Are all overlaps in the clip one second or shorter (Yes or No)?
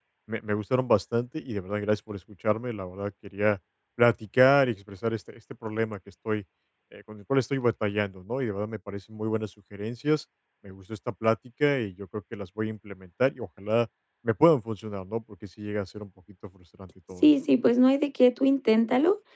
Yes